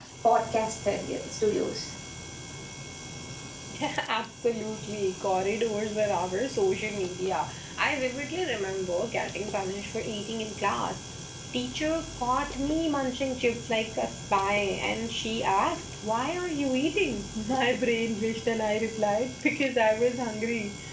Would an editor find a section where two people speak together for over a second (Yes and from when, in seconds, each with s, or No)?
No